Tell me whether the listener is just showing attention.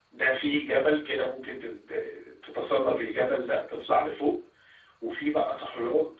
Yes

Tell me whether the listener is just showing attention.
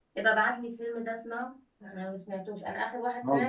Yes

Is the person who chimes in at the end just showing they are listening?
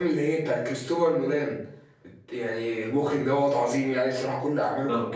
No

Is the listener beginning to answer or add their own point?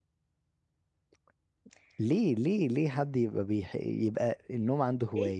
Yes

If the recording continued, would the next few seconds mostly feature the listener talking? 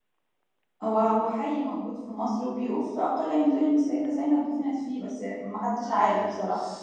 Yes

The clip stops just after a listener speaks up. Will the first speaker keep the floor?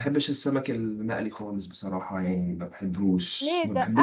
No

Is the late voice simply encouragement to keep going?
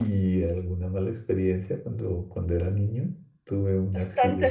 No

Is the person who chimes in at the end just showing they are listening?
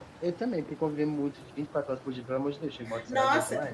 No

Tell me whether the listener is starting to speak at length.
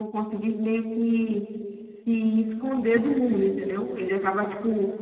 No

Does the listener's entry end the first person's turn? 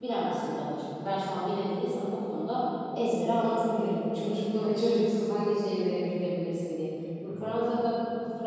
No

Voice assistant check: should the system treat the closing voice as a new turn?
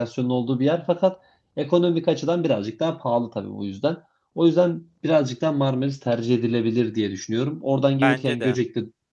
No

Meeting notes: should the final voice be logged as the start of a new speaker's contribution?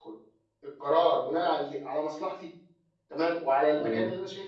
No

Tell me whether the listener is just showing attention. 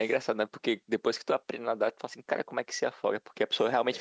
Yes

